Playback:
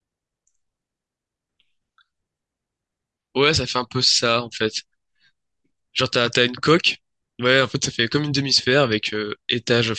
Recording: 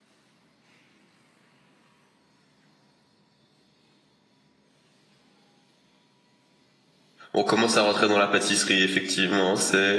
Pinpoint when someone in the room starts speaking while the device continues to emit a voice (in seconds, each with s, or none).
7.3 s